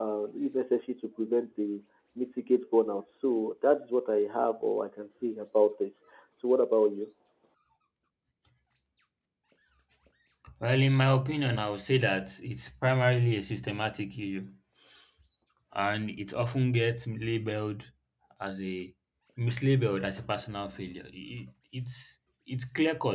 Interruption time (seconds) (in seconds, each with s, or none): none